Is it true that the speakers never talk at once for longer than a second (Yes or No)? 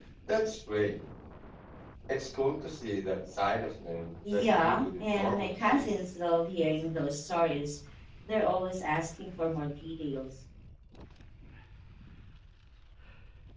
No